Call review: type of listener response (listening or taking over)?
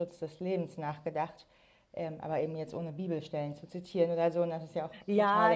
taking over